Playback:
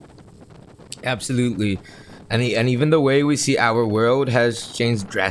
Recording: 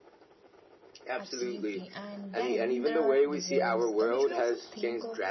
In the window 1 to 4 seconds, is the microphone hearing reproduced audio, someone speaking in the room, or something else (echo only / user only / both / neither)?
both